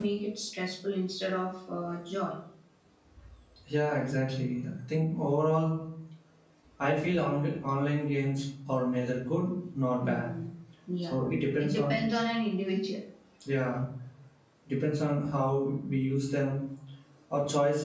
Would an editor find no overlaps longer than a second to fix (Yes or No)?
Yes